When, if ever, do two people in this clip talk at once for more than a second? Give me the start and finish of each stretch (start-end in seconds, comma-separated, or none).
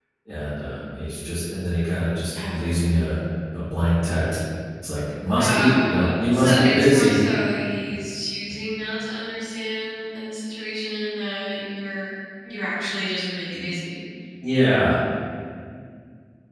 5.4-7.2